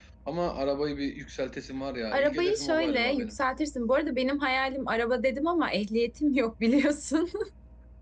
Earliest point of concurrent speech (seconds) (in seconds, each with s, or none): 2.1 s